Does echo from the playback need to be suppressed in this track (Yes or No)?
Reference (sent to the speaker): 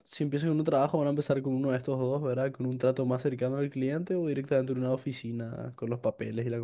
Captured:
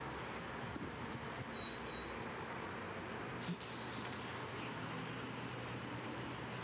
No